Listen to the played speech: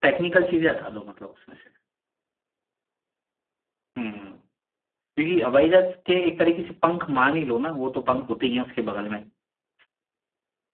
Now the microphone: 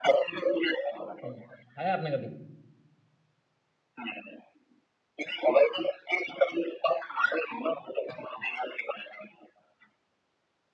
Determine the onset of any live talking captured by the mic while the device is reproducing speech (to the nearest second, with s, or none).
1 s